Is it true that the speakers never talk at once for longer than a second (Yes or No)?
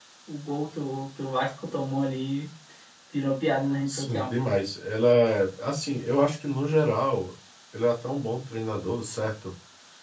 Yes